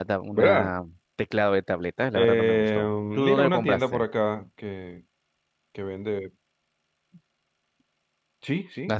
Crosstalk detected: Yes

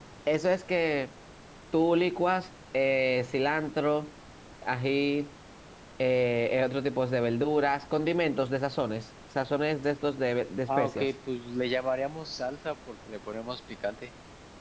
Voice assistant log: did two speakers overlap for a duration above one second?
No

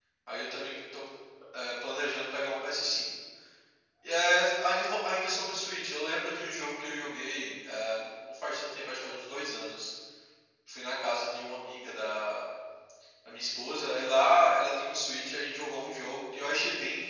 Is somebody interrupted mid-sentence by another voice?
No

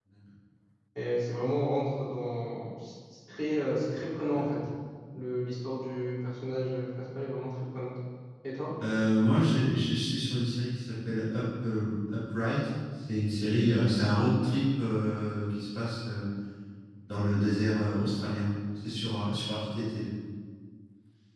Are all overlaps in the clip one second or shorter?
Yes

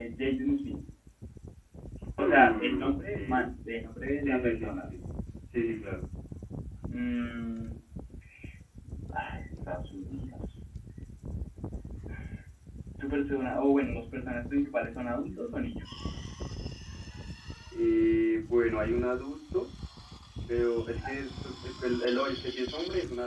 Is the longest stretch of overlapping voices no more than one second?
No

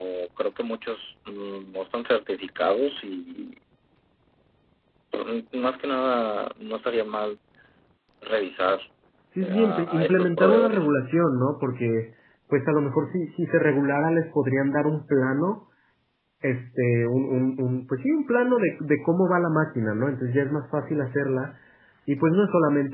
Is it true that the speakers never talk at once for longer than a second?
No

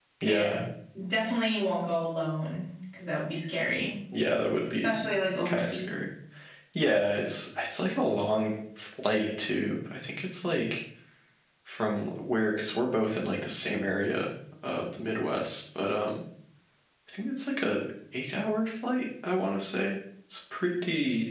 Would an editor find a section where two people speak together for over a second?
No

